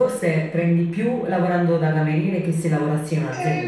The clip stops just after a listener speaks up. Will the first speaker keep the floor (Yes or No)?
No